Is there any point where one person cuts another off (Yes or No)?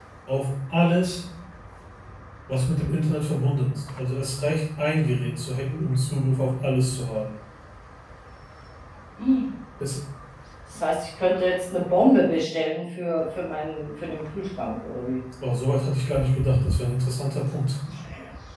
No